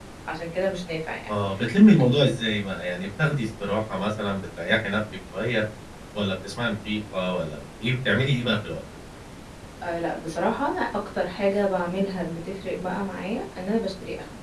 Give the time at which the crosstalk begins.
none

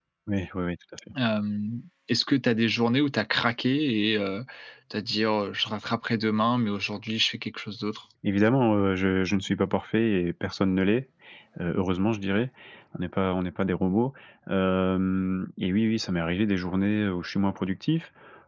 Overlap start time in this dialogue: none

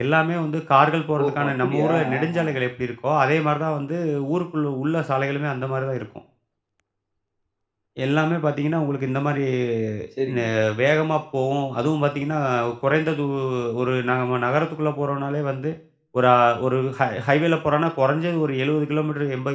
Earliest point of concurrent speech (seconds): 1.2 s

